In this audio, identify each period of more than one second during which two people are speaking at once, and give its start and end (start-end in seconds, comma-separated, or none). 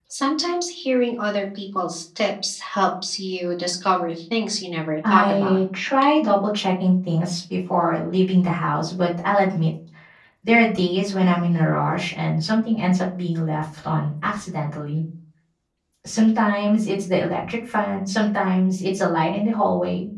none